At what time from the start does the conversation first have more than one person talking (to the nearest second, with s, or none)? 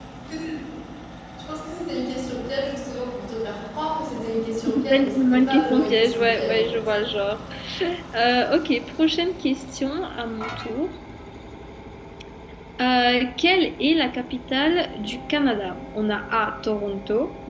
5 s